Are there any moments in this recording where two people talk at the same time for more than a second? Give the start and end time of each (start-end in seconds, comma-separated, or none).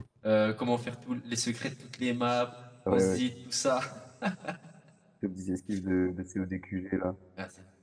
none